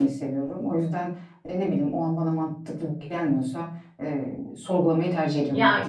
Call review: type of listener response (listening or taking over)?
taking over